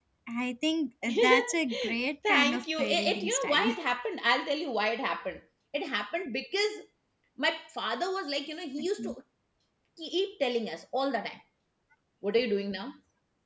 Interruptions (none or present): present